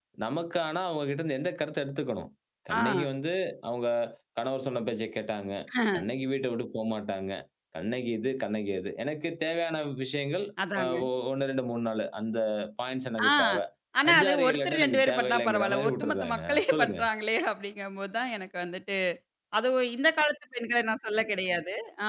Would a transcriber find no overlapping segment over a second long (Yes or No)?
No